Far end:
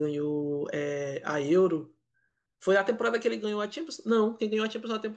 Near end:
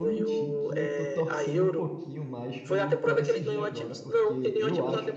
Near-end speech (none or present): present